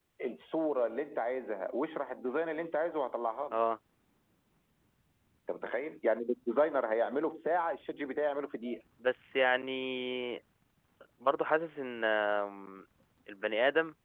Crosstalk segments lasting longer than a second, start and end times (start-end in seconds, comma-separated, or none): none